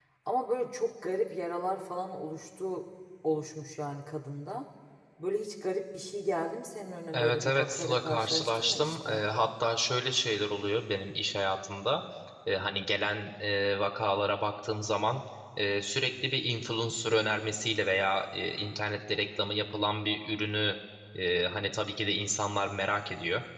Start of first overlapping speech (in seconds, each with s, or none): 7.1 s